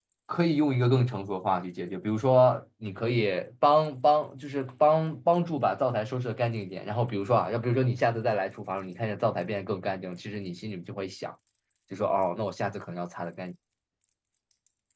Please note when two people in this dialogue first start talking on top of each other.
none

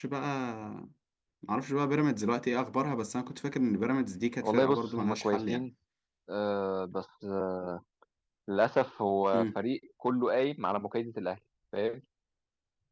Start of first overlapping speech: 4.4 s

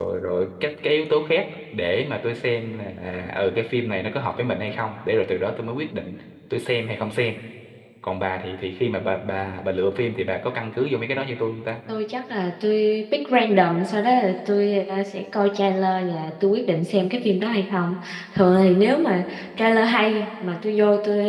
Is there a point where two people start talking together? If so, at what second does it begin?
none

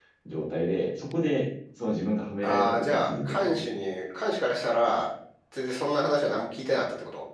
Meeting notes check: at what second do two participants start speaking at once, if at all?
2.4 s

